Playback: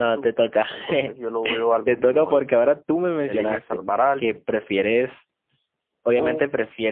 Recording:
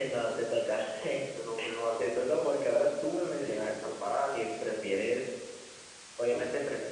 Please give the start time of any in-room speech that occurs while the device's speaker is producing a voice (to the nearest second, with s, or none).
none